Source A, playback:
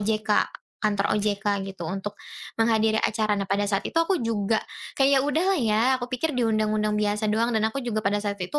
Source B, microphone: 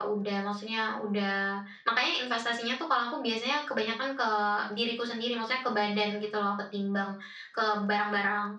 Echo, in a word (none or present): none